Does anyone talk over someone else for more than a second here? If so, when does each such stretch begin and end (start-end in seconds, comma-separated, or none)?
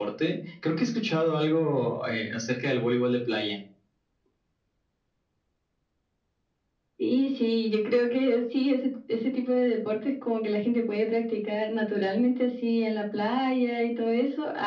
none